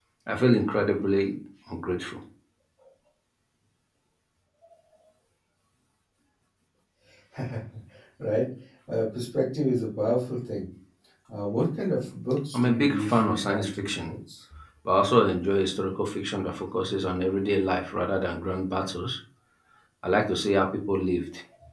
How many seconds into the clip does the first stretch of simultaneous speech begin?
12.5 s

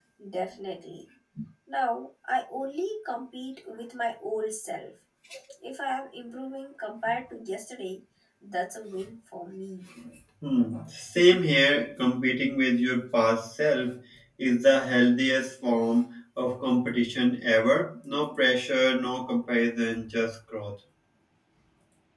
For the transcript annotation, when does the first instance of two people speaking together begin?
none

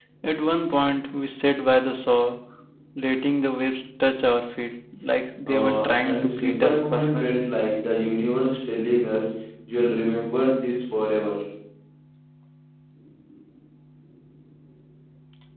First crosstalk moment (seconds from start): 5.5 s

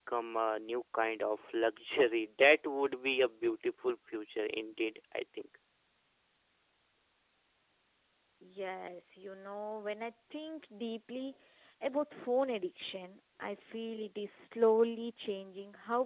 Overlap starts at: none

